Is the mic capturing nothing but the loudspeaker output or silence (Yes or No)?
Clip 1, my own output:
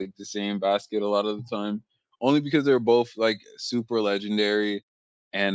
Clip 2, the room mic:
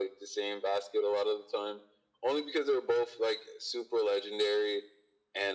Yes